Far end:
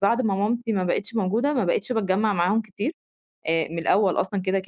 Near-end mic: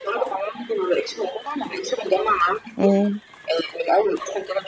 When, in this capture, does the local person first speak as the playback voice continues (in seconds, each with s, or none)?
2.8 s